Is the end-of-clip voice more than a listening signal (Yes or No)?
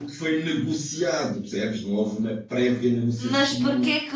Yes